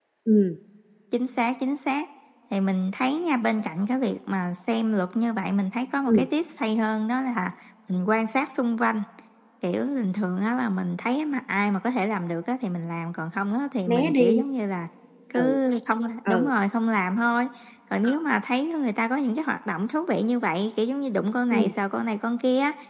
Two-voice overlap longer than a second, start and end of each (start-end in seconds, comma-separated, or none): none